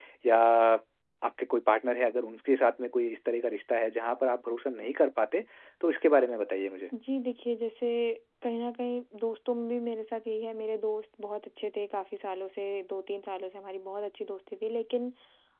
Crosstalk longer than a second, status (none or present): none